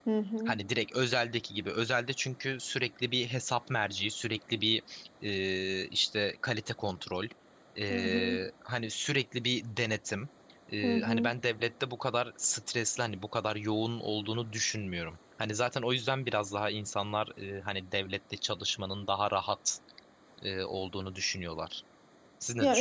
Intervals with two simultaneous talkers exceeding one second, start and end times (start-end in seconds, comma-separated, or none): none